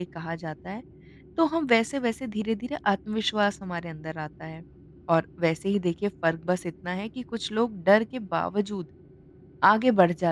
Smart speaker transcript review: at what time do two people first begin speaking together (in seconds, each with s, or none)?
none